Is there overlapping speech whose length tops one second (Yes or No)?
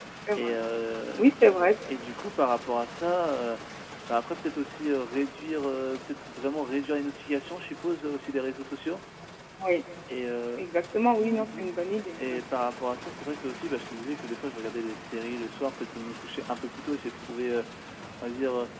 No